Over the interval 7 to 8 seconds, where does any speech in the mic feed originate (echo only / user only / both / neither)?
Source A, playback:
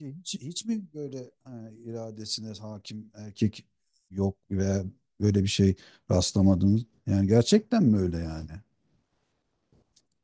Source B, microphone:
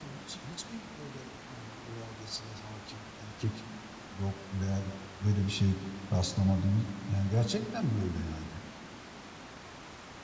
echo only